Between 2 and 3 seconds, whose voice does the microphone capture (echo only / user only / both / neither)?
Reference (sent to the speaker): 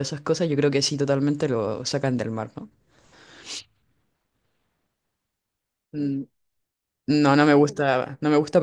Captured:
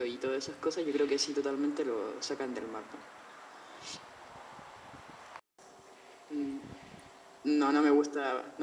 echo only